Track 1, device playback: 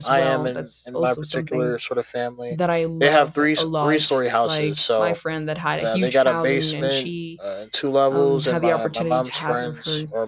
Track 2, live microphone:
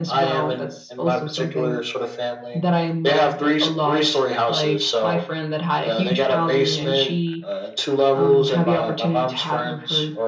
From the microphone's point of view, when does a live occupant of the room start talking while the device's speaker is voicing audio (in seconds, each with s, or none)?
none